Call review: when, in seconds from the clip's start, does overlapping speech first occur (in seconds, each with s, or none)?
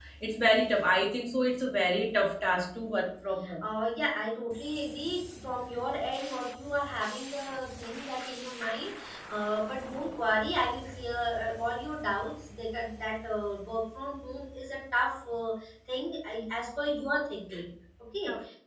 none